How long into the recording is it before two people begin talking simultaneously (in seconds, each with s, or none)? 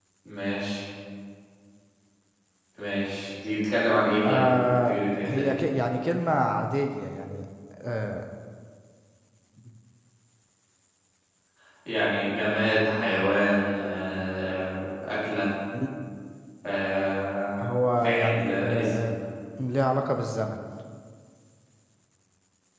4.2 s